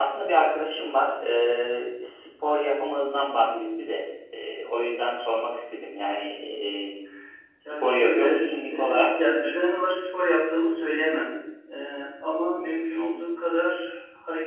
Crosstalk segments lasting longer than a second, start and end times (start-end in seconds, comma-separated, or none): 7.8-9.2